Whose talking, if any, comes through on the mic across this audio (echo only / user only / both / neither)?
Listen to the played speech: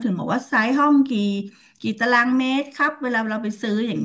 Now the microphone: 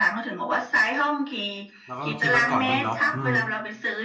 both